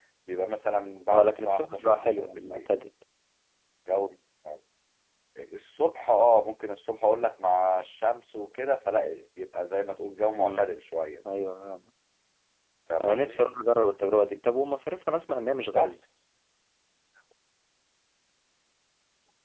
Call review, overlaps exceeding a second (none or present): present